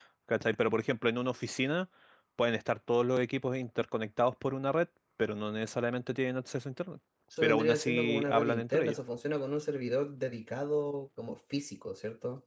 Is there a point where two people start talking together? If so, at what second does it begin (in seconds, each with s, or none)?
7.4 s